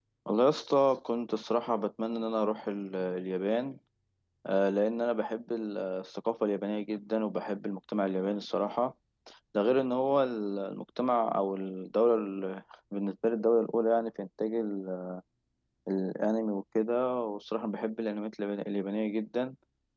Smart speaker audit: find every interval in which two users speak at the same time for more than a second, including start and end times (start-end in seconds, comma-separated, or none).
none